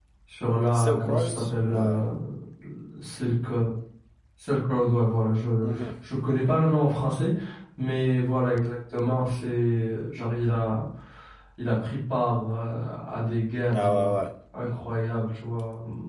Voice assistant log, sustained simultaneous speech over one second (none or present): present